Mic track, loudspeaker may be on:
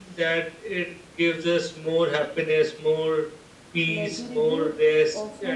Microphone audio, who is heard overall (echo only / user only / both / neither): both